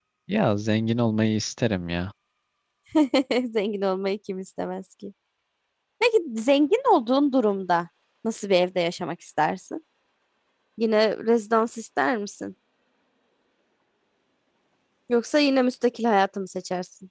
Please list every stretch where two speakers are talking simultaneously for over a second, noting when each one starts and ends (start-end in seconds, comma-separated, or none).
none